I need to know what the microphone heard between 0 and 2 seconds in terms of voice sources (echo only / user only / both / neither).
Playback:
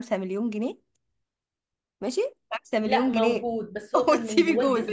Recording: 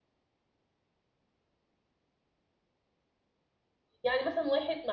neither